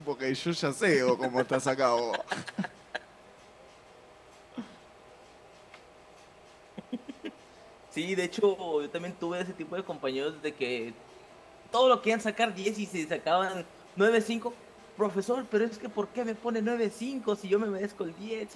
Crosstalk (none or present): none